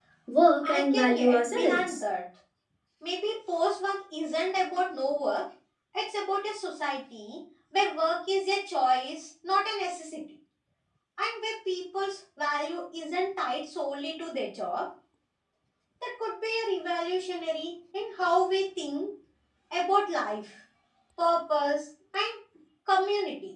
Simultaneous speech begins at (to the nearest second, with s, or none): 1 s